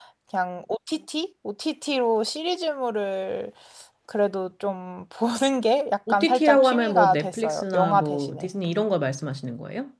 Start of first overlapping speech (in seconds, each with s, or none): 6.1 s